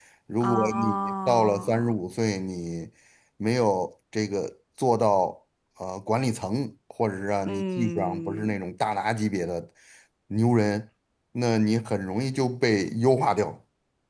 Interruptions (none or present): present